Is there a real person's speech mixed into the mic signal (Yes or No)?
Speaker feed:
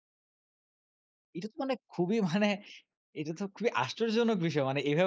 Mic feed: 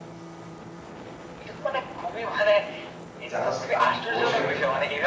Yes